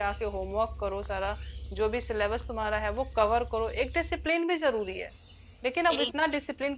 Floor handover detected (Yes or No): No